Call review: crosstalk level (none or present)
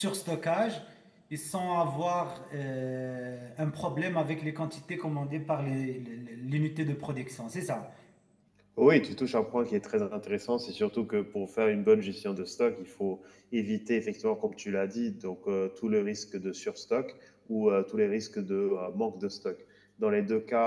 none